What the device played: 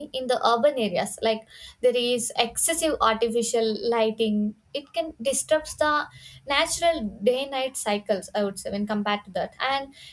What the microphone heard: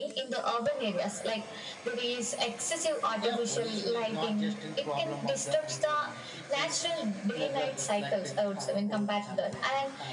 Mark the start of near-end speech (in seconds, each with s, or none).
3.2 s